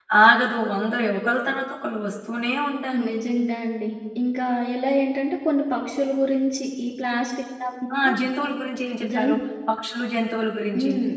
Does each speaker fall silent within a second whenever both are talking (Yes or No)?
Yes